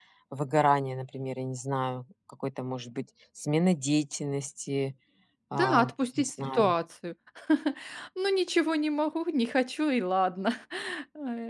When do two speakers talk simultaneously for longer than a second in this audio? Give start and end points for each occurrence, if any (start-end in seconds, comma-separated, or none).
5.5-6.7